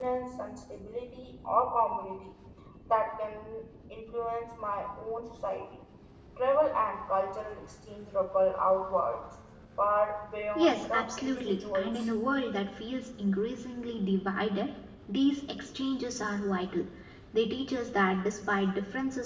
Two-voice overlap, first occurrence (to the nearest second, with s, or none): 11 s